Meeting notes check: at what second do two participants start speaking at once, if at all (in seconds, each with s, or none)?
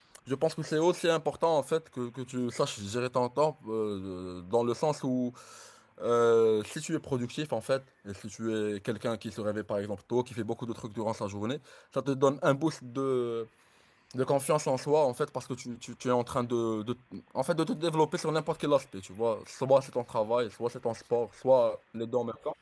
none